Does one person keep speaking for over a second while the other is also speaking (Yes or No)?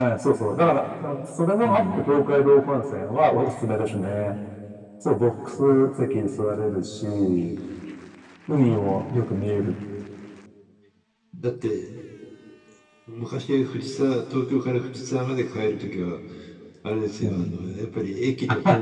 No